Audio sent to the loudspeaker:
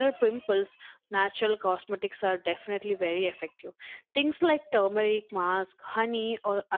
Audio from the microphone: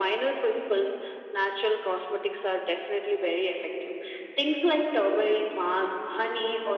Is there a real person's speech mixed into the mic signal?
No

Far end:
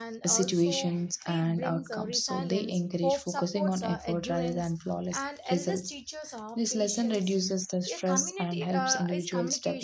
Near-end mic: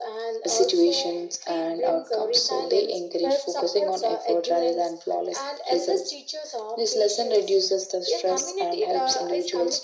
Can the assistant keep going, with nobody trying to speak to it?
Yes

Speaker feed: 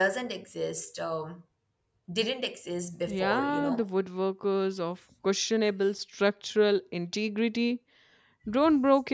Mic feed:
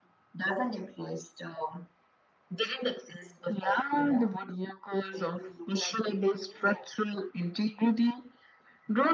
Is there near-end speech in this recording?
Yes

